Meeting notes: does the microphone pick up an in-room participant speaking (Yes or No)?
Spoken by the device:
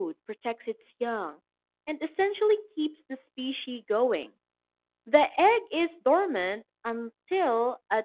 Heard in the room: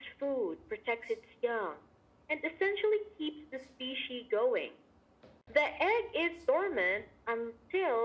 No